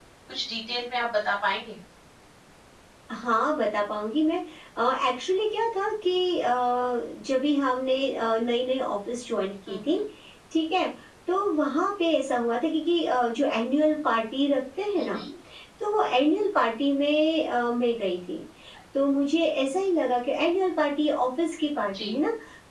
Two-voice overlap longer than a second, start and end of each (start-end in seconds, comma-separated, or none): none